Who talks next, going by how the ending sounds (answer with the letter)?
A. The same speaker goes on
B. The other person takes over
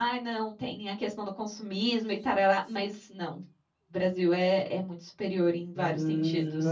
B